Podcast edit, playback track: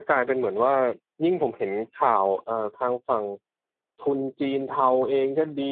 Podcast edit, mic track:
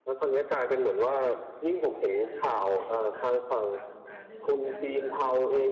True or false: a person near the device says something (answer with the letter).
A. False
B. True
B